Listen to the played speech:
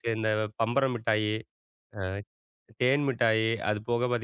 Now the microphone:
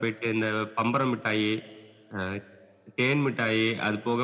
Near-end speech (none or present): none